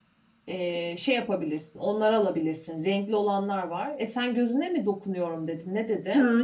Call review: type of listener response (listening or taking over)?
taking over